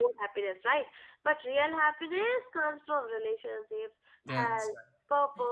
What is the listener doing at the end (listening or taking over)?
listening